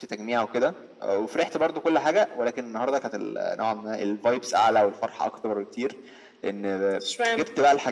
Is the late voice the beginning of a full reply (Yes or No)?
No